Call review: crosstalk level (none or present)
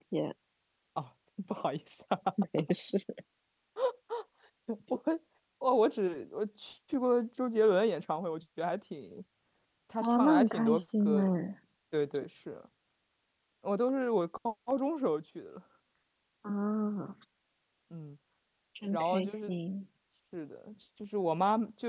present